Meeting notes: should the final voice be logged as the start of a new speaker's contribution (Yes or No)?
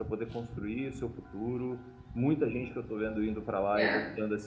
No